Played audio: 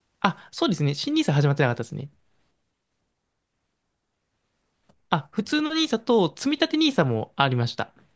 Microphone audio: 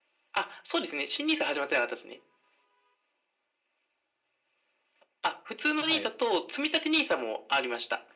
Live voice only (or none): はい。